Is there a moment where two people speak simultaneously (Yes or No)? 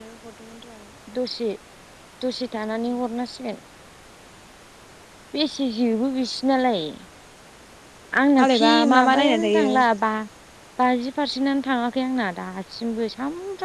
Yes